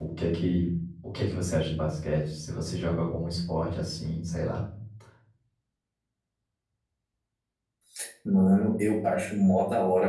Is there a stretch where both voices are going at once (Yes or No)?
No